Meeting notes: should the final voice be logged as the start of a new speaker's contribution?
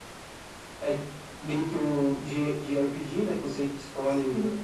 No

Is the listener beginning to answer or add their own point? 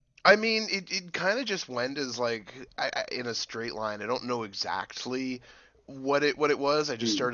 No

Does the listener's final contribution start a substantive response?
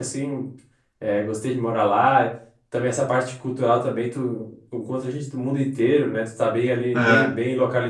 No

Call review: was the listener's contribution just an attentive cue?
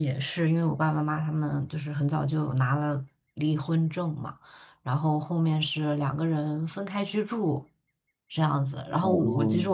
Yes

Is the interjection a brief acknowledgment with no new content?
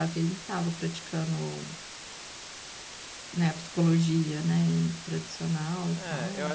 No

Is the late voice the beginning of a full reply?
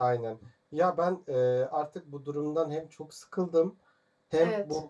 No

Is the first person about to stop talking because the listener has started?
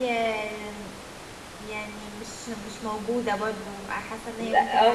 Yes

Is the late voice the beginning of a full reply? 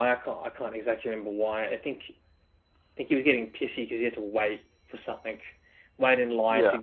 No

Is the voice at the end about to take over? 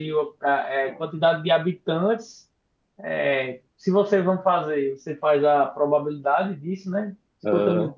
No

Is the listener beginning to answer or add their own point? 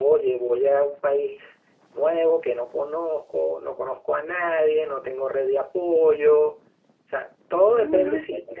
Yes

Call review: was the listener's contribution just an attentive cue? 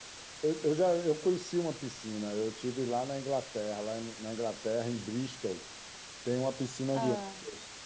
Yes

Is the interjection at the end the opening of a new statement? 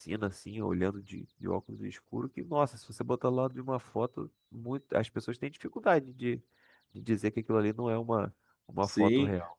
Yes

